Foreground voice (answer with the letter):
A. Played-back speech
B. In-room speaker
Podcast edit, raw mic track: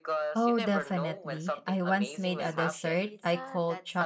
B